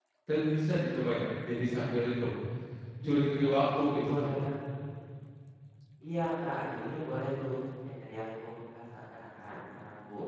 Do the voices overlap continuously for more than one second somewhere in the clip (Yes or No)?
No